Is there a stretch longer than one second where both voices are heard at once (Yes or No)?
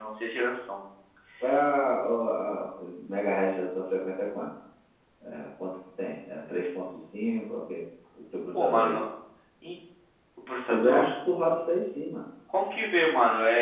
No